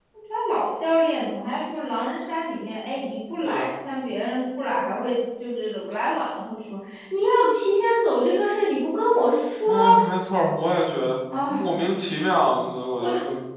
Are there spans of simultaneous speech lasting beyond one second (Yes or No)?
No